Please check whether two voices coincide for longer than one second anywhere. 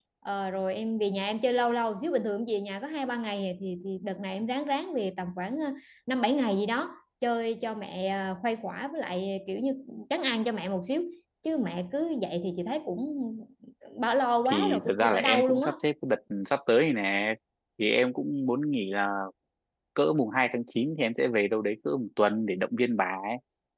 Yes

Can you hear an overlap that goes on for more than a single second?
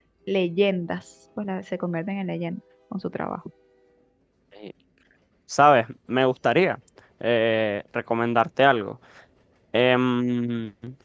No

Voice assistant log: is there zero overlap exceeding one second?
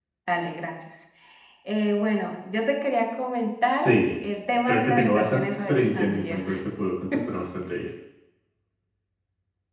No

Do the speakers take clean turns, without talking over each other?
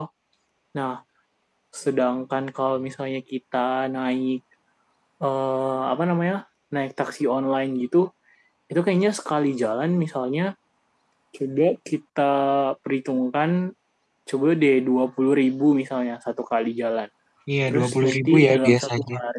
No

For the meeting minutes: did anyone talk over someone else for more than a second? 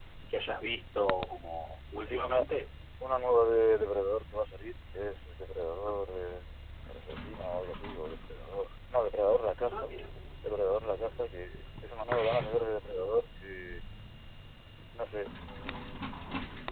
No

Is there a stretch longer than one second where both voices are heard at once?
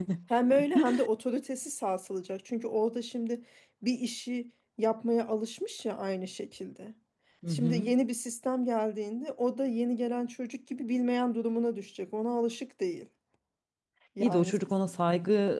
No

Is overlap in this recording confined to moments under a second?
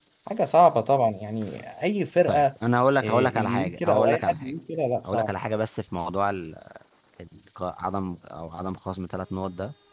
No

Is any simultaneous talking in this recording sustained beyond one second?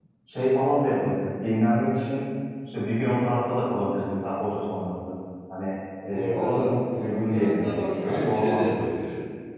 Yes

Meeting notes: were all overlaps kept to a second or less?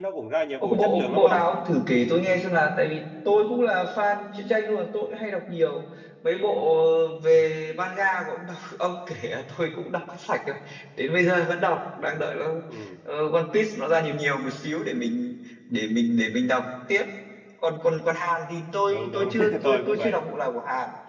No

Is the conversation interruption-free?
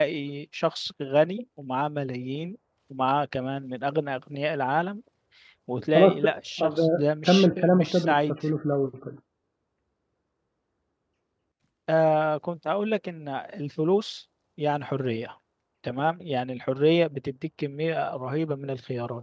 No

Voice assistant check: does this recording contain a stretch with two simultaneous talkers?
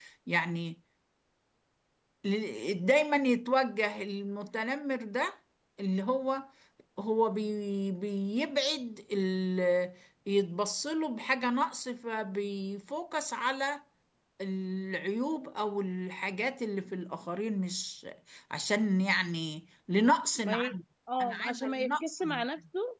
Yes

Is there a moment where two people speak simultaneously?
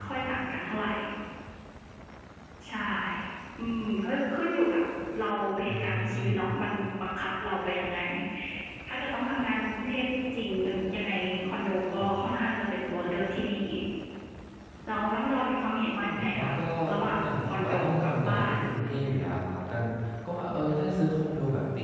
Yes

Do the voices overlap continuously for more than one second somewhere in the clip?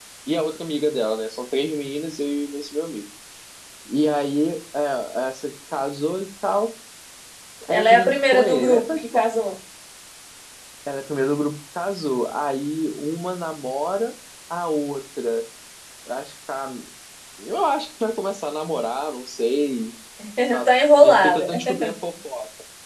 Yes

